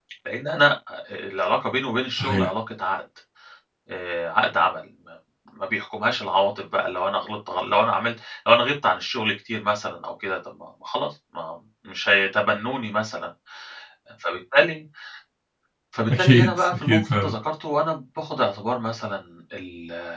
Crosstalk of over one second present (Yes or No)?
Yes